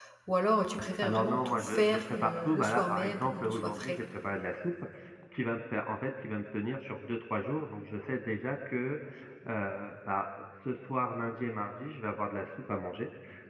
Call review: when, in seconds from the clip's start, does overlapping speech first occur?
1 s

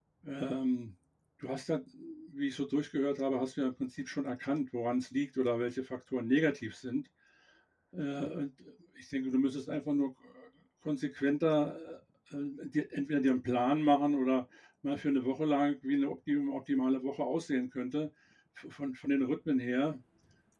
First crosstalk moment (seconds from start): none

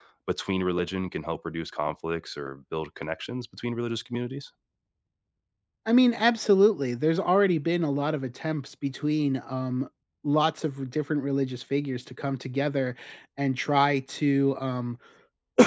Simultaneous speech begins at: none

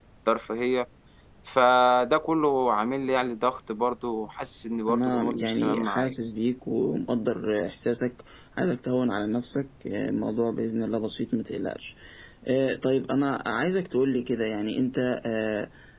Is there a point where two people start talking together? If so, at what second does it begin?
5 s

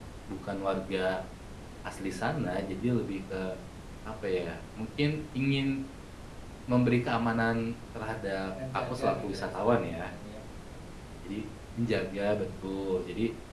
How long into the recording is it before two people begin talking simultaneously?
9 s

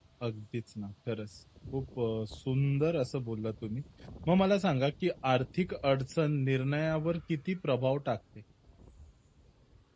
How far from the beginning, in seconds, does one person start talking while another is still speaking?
none

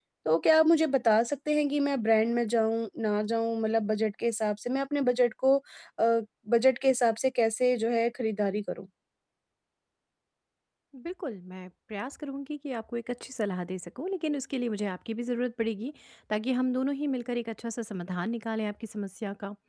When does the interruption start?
none

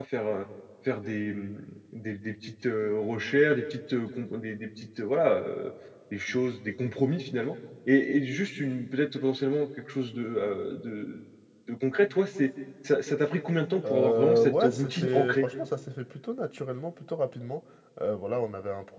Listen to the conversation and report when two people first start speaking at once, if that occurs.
14 s

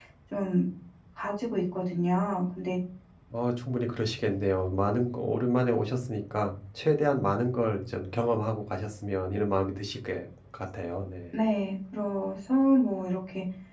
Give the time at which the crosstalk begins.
none

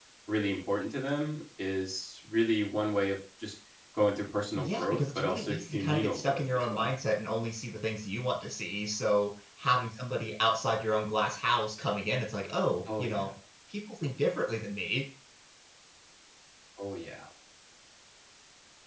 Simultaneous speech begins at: 5 s

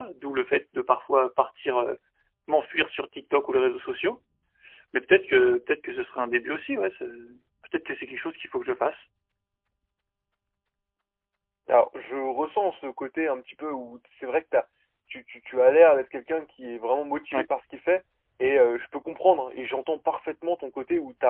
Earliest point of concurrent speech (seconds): none

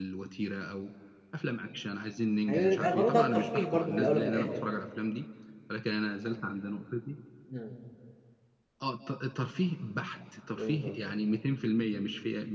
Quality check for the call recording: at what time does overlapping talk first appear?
2 s

